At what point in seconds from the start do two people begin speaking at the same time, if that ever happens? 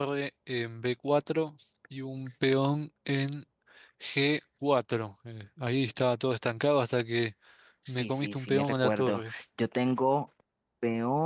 7.9 s

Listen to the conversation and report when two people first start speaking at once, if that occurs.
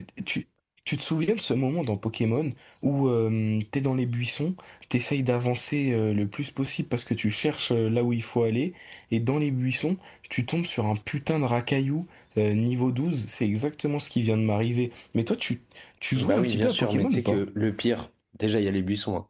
16.2 s

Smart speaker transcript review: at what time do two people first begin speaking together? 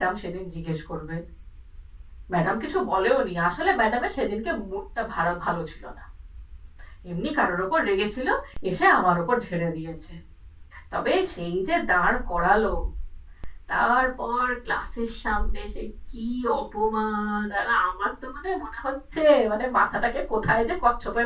none

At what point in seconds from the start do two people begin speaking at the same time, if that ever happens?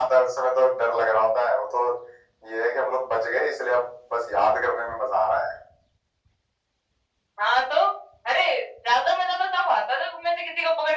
none

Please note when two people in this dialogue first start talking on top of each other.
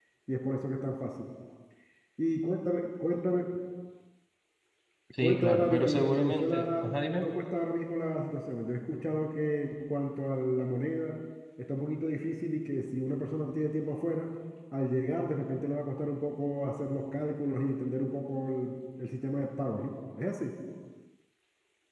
5.2 s

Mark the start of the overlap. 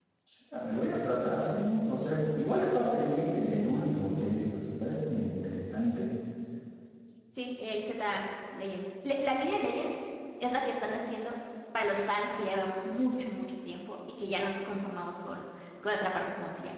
none

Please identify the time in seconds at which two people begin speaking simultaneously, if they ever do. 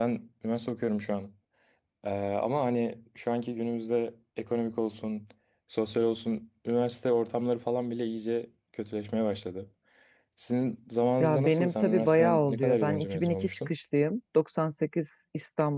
11.2 s

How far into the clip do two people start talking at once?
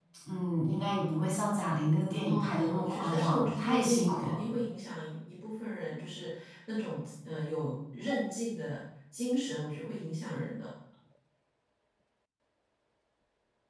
2.2 s

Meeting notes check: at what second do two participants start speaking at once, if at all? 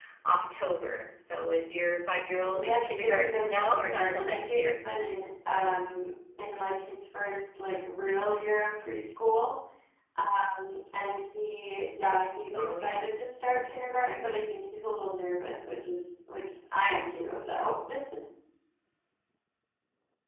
2.5 s

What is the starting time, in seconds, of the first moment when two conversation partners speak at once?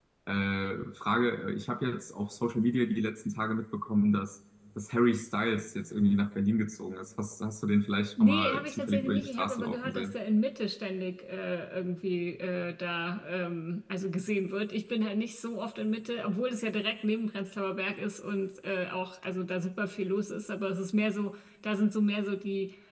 8.2 s

